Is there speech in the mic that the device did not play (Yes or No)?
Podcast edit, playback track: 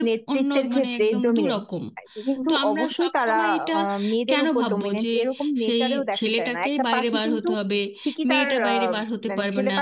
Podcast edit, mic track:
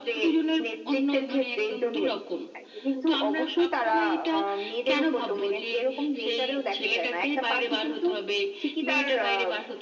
No